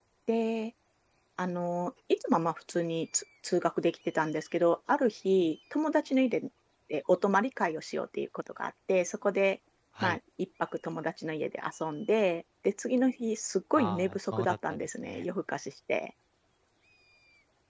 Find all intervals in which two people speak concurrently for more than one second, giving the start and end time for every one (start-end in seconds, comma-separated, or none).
13.8-15.2